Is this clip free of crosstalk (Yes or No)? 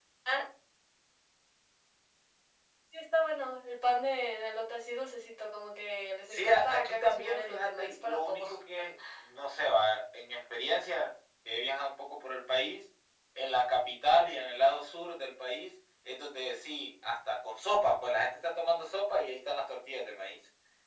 No